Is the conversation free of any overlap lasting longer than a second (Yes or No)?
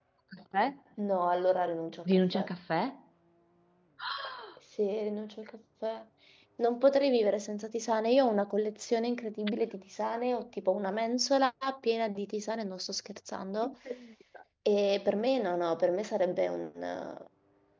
Yes